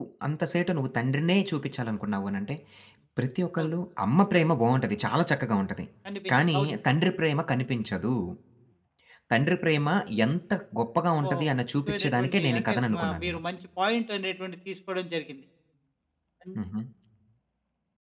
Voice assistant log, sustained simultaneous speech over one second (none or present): present